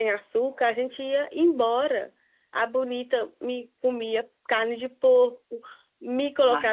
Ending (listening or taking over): listening